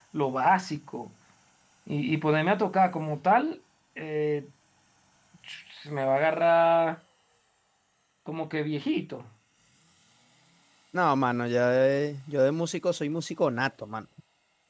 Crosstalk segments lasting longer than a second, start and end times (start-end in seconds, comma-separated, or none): none